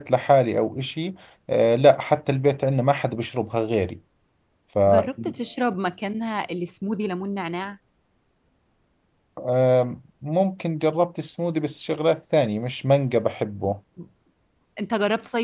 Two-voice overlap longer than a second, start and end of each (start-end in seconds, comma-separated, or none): none